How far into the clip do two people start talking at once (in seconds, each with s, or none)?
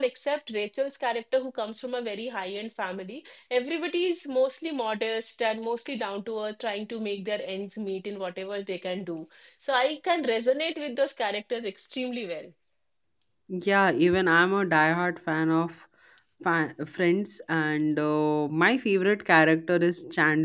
none